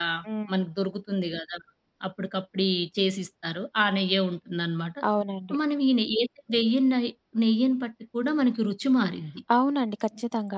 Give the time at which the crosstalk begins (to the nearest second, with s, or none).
none